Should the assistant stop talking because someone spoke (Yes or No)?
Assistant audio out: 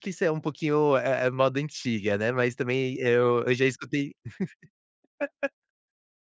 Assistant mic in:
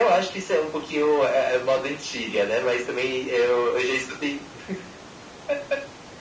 No